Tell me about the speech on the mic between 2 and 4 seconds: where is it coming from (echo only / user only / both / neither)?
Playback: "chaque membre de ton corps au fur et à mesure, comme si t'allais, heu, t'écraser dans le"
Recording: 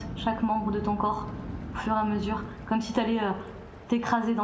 echo only